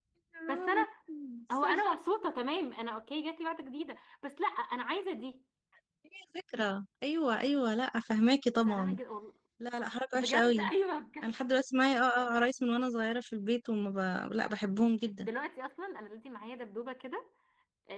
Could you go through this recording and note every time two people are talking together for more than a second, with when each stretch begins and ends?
none

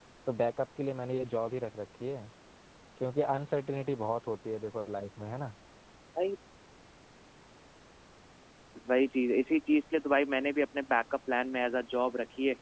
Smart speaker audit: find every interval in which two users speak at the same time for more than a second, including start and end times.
none

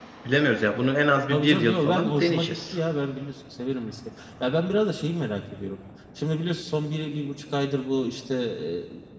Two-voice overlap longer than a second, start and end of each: 1.3-2.8

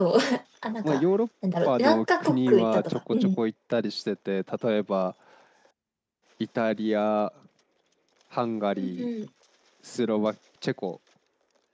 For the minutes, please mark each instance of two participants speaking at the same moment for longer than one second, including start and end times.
1.6-3.4

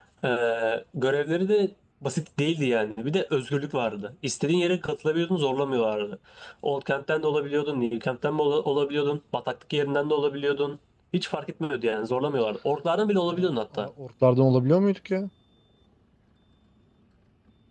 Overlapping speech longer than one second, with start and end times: none

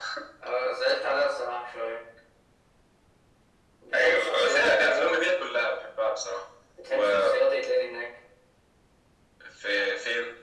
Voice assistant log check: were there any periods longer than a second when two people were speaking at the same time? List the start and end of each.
3.9-5.2

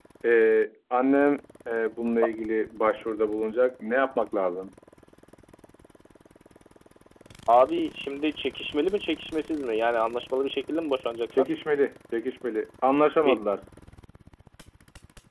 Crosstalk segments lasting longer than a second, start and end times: none

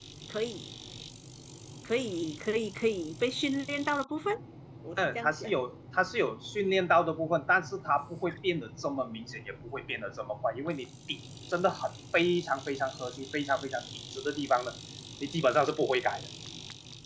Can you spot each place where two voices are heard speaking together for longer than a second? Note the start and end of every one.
none

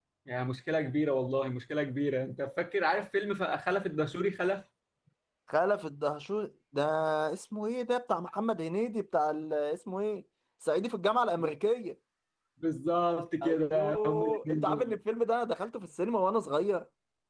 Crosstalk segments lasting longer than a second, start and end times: 13.4-14.9

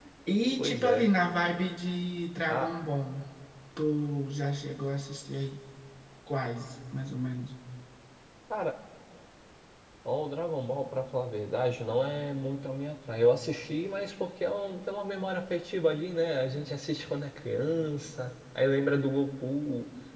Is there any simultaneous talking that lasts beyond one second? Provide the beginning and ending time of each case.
none

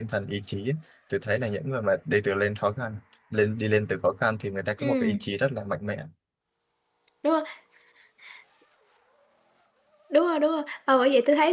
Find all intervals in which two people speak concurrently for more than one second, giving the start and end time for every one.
none

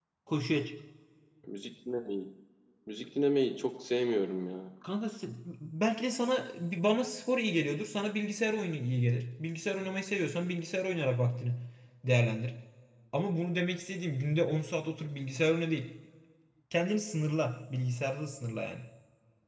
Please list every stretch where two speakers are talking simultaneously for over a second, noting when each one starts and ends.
none

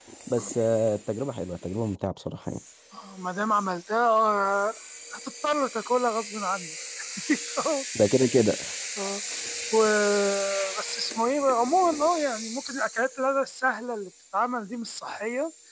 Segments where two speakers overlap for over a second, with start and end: none

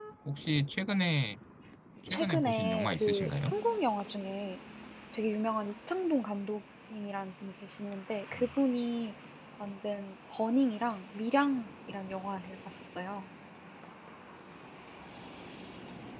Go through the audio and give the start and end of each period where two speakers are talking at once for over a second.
2.1-3.3

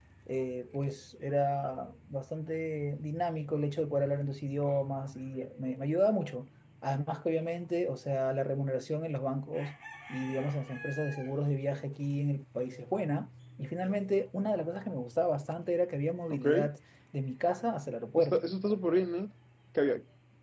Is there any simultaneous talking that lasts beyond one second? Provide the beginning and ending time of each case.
none

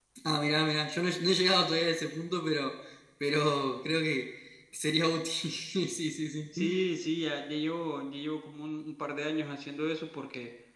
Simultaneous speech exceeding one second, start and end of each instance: none

